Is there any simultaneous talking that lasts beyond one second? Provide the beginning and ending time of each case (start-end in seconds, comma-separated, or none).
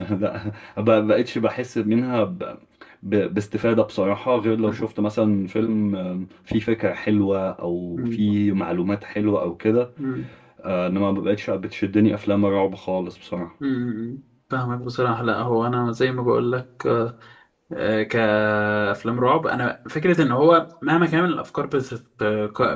none